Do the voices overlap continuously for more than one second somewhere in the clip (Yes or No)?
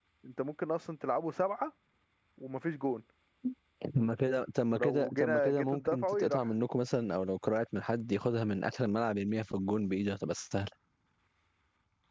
Yes